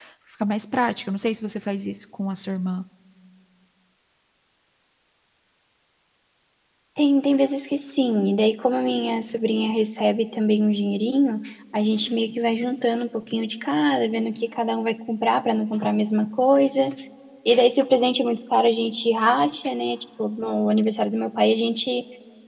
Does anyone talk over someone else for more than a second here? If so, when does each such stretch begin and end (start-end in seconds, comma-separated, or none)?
none